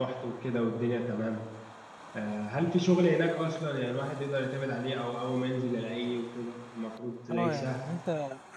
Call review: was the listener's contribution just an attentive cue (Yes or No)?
No